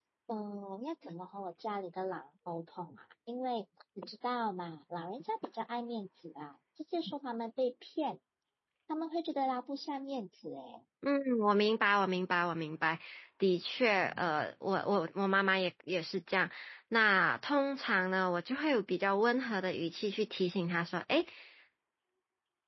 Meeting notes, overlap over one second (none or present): none